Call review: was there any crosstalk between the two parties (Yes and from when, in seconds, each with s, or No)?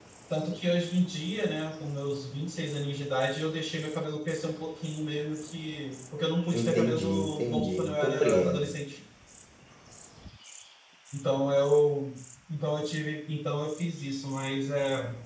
Yes, from 6.5 s